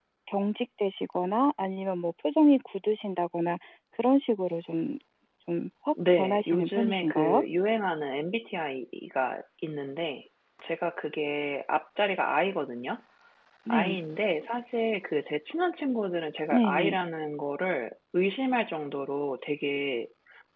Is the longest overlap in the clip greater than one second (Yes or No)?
Yes